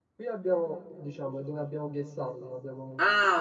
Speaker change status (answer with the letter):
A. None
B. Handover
B